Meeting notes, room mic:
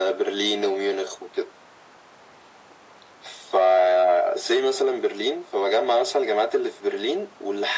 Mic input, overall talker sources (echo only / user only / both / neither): echo only